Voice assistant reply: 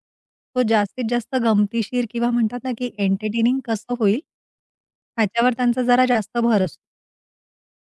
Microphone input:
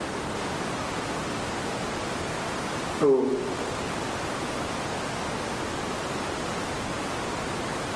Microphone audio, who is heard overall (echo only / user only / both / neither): user only